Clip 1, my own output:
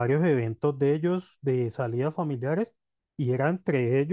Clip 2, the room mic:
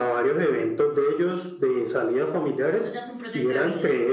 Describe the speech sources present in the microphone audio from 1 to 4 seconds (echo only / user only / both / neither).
both